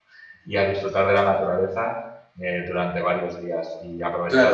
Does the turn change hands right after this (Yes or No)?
Yes